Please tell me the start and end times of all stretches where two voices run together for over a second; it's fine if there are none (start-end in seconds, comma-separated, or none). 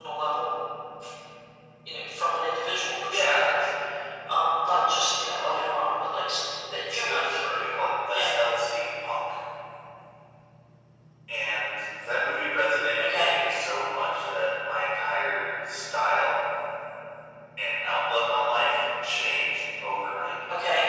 6.9-8.4